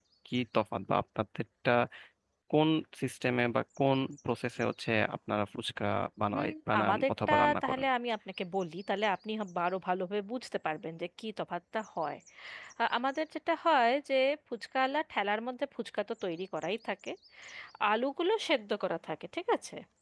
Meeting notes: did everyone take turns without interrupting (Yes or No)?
No